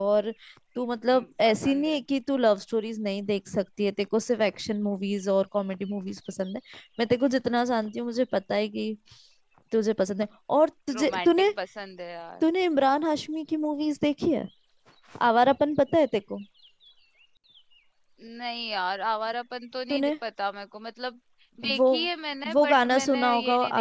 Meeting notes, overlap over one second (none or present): present